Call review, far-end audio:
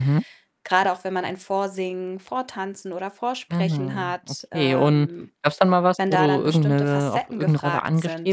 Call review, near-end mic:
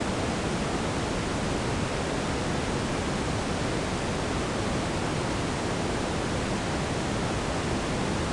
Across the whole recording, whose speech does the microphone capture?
neither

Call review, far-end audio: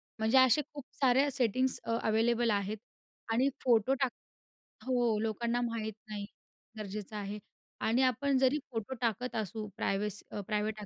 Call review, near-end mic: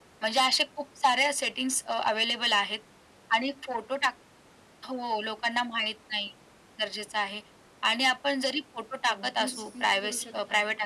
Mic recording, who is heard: both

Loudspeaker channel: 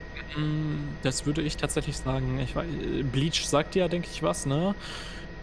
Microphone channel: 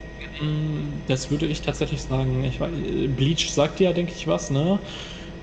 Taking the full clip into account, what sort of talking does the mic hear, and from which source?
echo only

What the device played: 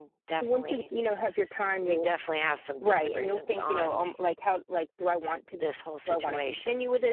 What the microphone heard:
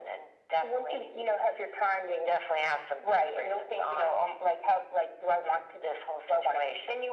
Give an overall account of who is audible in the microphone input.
echo only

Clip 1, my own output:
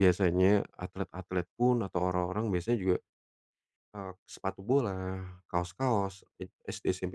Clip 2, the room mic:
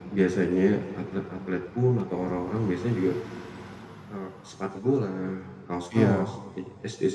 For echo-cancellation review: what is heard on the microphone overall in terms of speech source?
both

